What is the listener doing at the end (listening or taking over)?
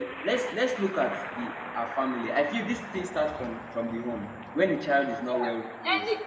taking over